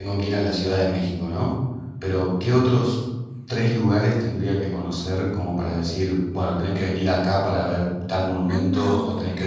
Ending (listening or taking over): listening